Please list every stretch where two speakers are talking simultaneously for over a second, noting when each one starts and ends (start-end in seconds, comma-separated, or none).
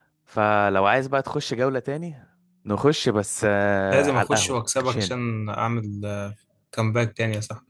3.9-5.1